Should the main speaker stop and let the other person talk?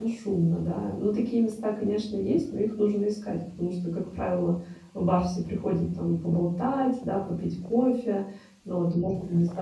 No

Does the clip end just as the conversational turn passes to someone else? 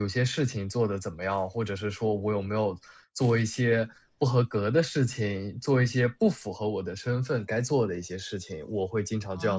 Yes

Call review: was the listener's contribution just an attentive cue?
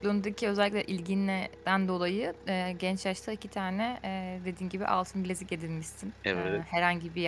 Yes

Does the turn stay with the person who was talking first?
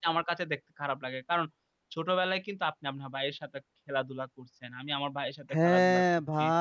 No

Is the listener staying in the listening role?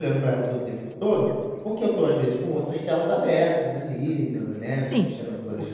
No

